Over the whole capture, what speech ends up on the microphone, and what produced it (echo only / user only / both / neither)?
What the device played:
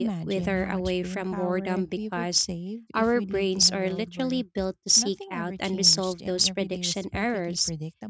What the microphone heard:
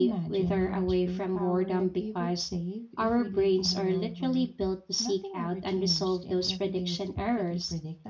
echo only